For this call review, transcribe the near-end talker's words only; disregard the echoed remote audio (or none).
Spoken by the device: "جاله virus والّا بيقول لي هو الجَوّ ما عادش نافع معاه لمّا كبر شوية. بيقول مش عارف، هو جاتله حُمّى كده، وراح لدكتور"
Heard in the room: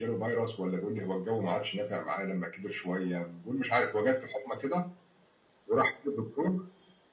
none